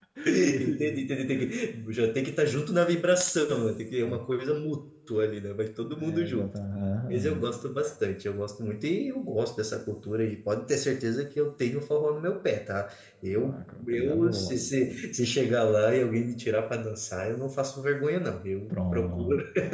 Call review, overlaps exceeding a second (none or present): present